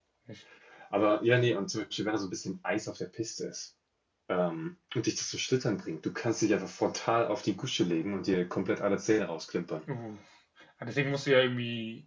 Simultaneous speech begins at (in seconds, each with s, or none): none